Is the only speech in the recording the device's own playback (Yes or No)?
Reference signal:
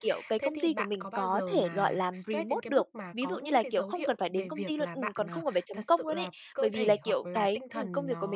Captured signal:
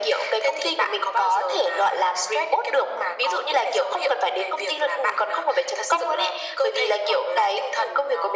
Yes